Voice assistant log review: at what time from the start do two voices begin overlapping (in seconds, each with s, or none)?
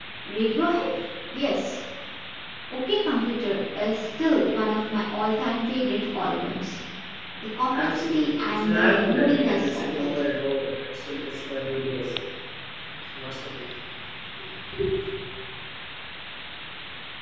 7.8 s